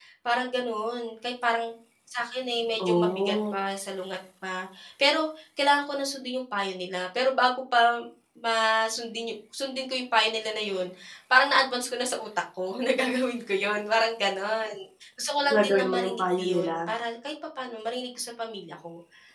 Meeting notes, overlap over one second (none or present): present